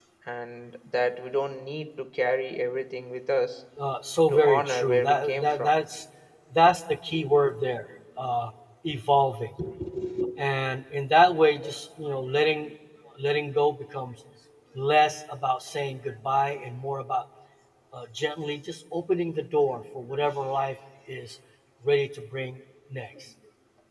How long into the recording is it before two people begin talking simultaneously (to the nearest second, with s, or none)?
4 s